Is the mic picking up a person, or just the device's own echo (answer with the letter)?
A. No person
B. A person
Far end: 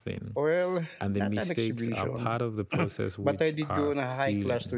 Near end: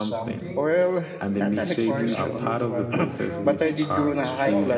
B